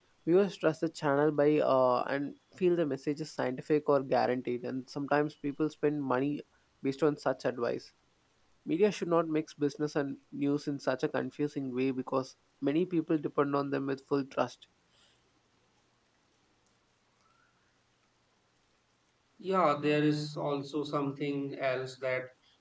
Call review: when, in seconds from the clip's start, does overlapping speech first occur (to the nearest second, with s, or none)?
none